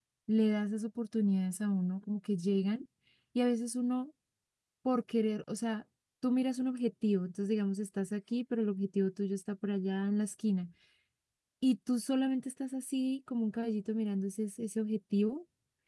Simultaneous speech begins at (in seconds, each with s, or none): none